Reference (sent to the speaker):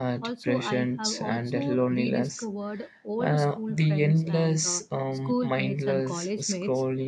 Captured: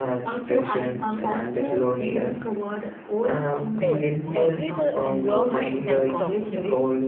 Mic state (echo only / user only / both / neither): both